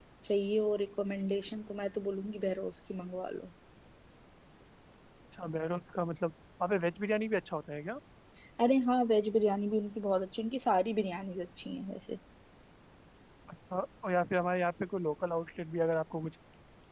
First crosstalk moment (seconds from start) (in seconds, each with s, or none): none